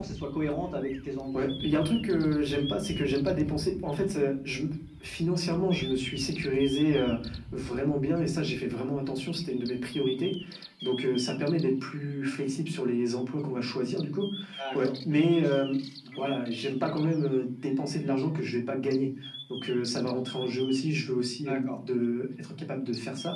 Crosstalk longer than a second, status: none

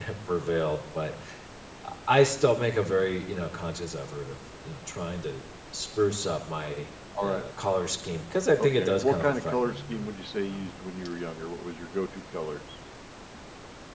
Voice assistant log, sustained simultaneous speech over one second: present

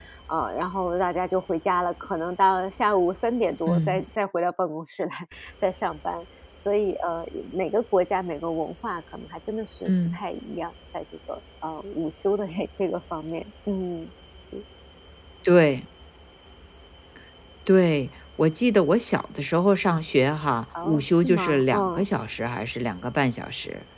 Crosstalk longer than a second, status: present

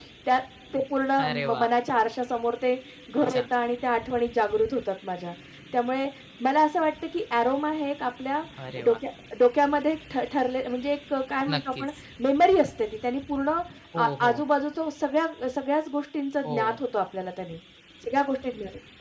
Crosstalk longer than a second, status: none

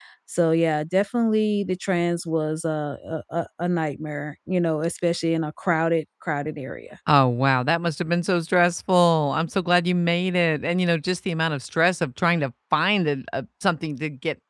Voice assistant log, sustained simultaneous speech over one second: none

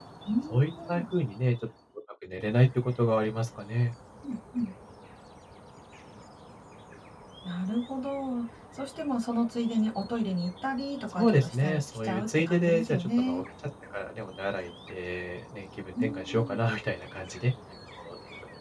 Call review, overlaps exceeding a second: present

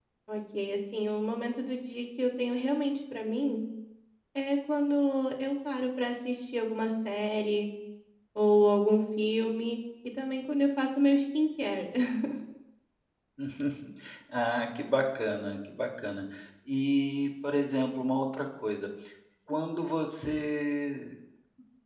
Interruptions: none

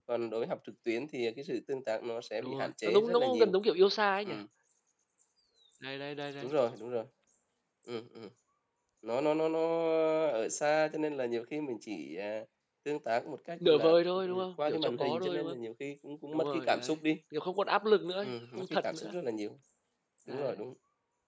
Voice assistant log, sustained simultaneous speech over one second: present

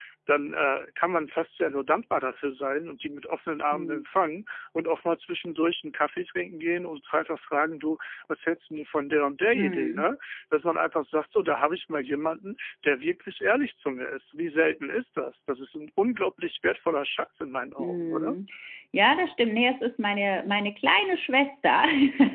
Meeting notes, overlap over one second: none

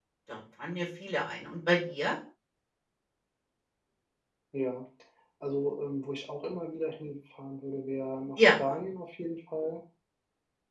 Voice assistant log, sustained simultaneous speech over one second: none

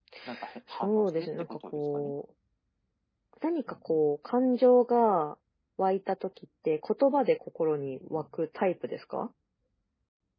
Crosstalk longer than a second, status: present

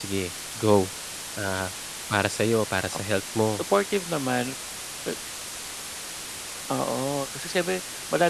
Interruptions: none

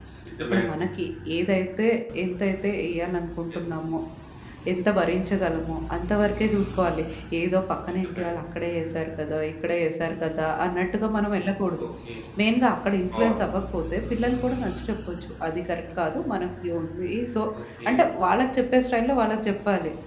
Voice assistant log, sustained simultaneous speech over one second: none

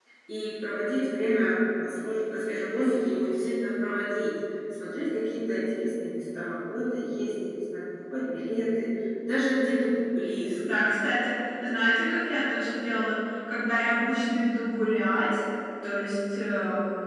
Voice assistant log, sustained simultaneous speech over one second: none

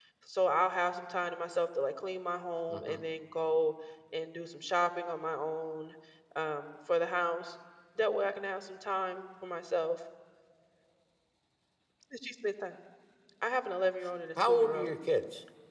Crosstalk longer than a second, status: none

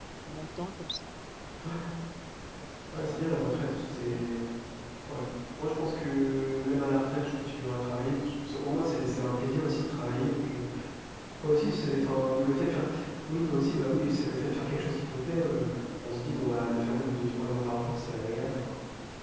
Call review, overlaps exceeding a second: none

